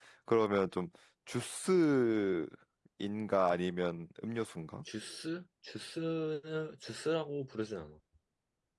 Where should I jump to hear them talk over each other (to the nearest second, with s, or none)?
none